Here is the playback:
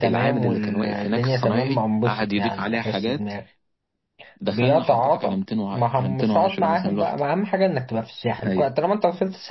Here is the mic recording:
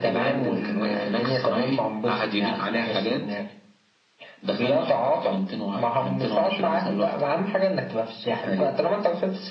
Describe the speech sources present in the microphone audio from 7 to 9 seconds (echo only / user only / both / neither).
echo only